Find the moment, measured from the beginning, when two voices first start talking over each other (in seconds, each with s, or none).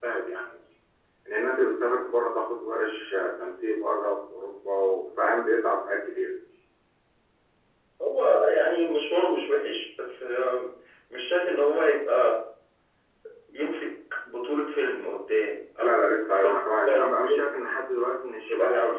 15.8 s